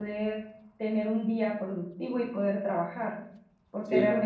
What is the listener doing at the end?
listening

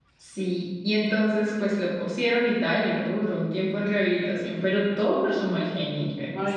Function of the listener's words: taking over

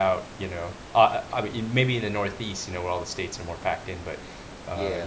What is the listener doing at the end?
listening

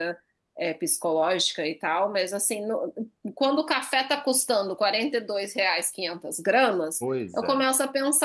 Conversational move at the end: listening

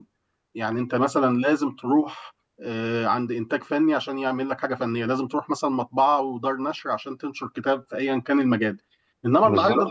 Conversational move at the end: listening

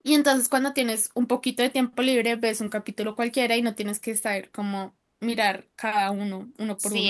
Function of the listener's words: taking over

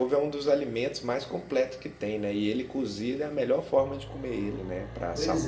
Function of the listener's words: taking over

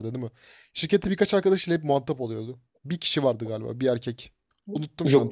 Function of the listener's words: taking over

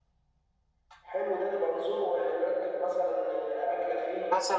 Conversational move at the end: taking over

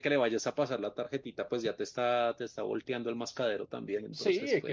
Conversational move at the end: taking over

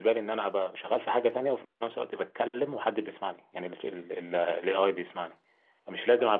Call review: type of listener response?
listening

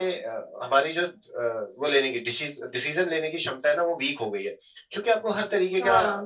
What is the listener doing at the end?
listening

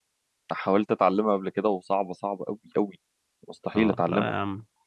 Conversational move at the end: taking over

